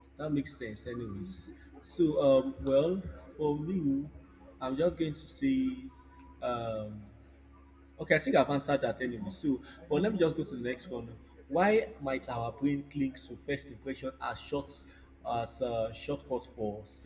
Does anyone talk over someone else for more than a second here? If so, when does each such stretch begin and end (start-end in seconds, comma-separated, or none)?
none